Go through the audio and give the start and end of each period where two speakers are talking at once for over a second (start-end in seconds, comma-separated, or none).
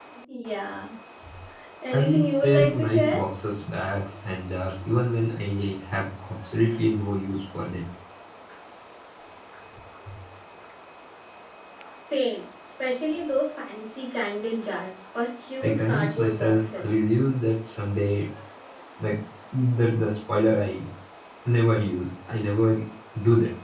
2.0-3.2, 15.6-16.9